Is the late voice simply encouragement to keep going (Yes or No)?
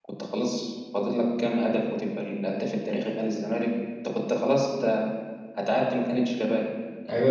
No